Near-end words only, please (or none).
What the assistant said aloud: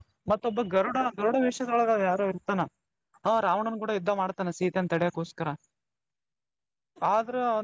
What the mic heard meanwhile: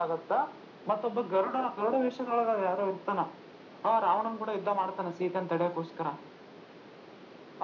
none